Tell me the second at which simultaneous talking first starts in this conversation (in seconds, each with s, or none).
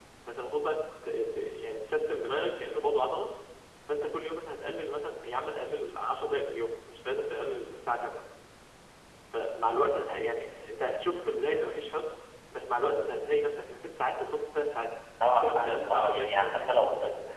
15.4 s